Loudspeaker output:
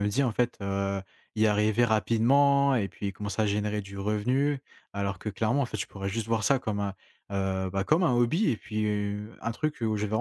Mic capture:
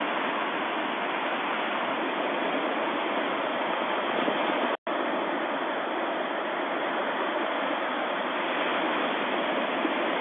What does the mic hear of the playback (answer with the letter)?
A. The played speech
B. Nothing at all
B